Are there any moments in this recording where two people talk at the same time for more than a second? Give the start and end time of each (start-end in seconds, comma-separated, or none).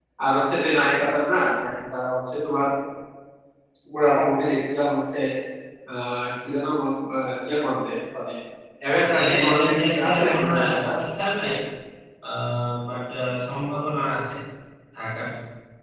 9.1-10.9